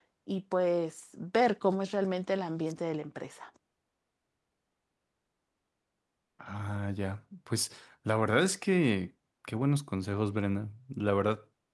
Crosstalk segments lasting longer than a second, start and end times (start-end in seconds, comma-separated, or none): none